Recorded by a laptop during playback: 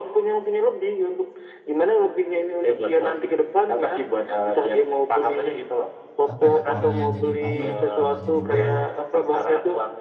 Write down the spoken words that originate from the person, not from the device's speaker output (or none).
apa ya orang yang jadi baik malah jadi buruk